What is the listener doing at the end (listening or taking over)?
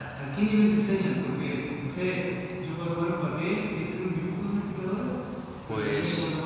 listening